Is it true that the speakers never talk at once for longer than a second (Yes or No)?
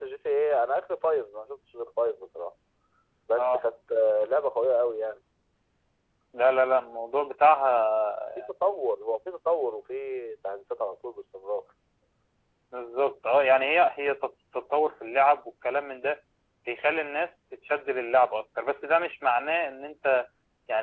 Yes